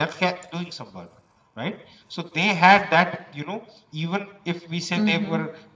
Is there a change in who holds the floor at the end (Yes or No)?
No